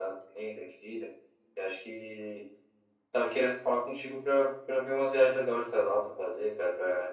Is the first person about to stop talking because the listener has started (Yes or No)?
No